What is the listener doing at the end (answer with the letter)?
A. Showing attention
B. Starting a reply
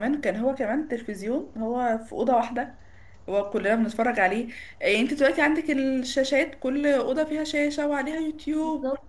A